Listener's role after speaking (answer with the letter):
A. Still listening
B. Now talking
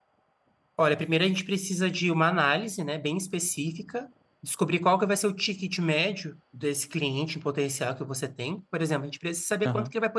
A